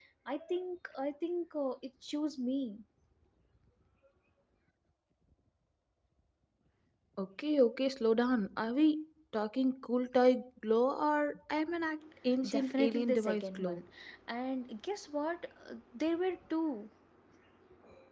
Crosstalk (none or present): present